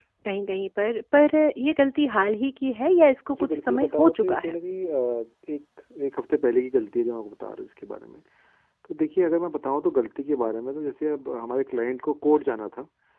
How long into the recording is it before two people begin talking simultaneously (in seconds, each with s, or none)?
3.3 s